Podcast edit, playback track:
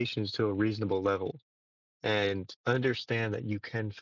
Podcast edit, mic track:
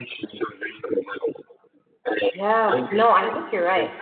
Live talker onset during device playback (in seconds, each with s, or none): 2.3 s